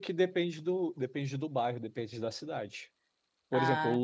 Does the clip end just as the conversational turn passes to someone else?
No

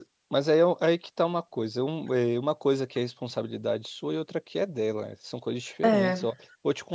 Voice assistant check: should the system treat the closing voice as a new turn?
No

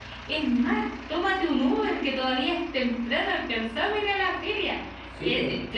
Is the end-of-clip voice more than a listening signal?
No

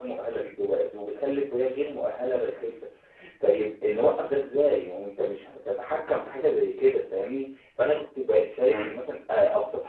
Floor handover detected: No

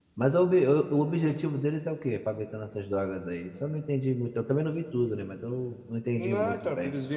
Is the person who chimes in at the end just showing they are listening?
No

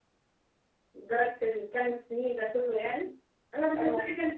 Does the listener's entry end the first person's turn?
No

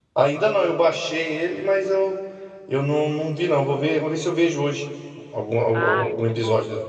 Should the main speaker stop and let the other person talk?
Yes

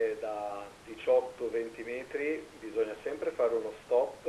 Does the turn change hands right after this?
No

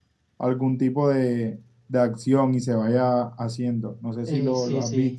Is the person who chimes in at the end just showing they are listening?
No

